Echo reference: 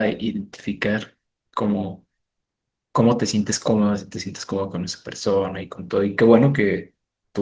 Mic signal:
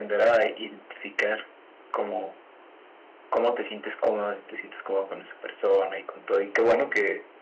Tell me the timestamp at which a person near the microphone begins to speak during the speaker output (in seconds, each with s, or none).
none